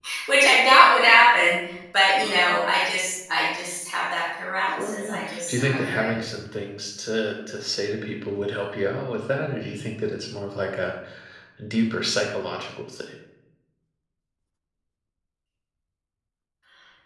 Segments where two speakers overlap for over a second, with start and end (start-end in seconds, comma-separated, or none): 4.7-6.2